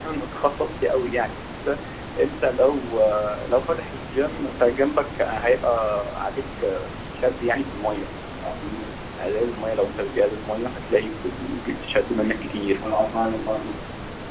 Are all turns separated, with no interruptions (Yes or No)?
Yes